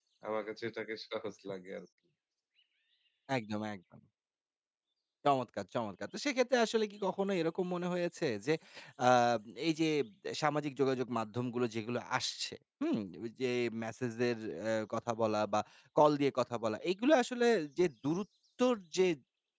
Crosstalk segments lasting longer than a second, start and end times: none

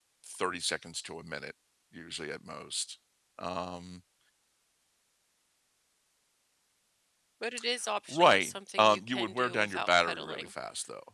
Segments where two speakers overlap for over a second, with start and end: 8.1-10.5

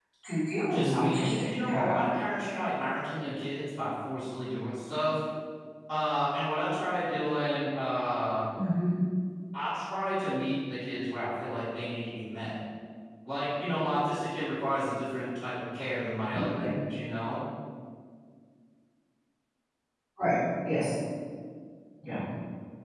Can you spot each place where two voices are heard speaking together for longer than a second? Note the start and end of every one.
0.7-2.0

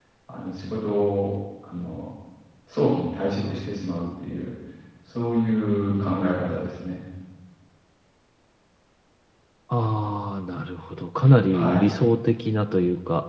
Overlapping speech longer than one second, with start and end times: none

